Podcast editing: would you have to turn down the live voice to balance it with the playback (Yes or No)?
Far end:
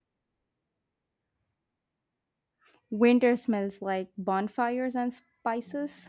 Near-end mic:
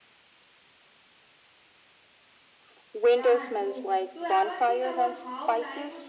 No